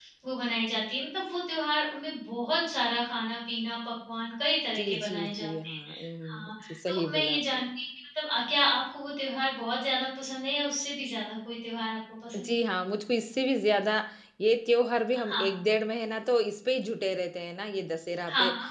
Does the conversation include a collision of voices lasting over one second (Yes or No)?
Yes